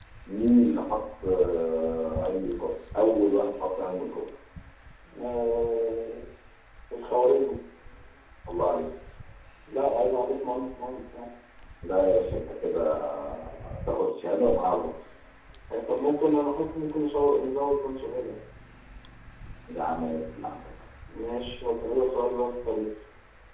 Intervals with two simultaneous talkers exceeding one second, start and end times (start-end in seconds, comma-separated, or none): none